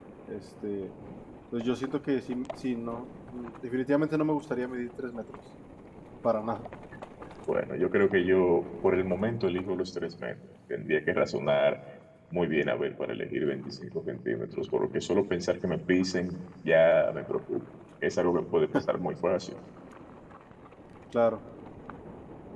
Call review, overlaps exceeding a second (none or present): none